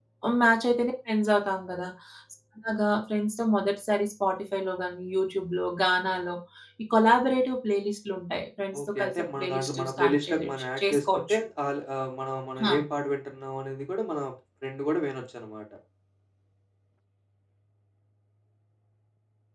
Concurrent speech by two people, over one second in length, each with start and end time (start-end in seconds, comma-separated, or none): 8.9-11.4